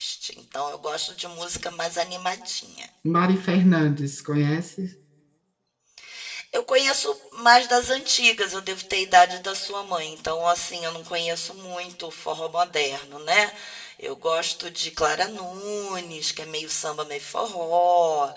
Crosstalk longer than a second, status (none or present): none